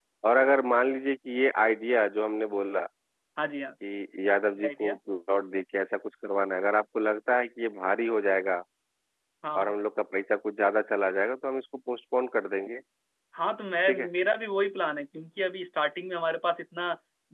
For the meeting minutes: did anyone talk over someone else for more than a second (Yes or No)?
No